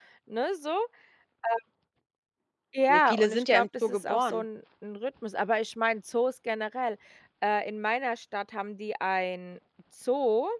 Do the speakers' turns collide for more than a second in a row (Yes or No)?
Yes